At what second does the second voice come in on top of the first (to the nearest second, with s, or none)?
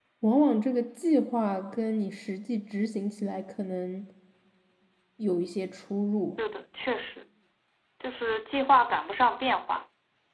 none